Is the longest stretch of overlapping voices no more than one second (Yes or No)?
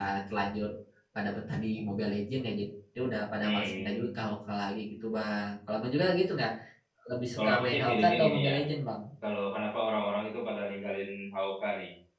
No